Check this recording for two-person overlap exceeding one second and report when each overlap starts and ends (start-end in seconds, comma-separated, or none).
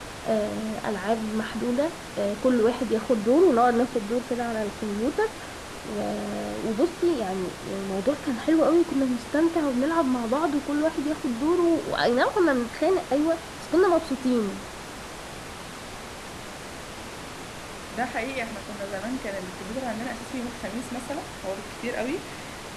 none